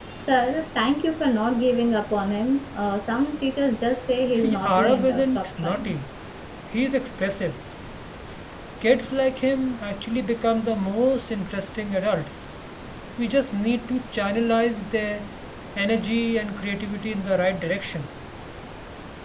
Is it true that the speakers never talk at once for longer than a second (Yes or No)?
No